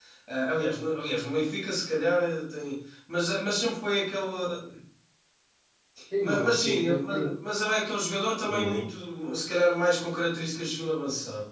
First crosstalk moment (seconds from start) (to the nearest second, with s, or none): 6 s